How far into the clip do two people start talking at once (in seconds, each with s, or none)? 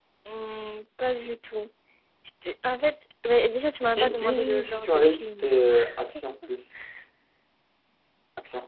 4.0 s